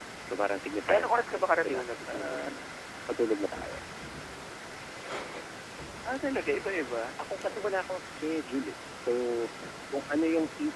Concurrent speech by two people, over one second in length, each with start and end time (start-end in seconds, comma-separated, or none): 0.9-2.4